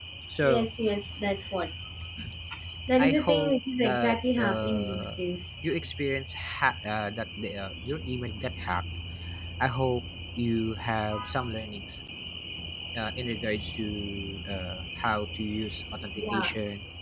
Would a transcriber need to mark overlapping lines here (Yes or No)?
Yes